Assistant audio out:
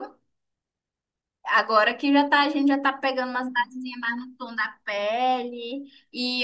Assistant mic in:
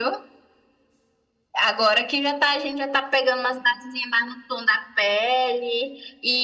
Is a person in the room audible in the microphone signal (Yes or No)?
No